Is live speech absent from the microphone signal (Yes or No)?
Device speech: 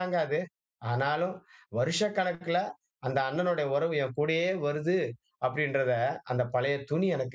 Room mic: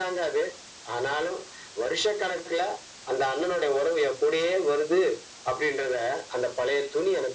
Yes